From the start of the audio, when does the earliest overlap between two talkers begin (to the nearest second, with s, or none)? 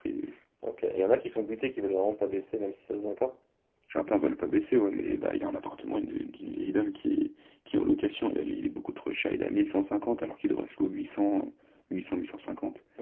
none